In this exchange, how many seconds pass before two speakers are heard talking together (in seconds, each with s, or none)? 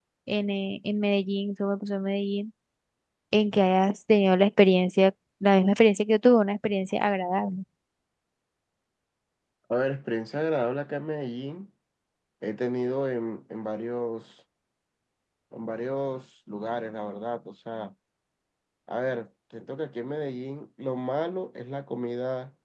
none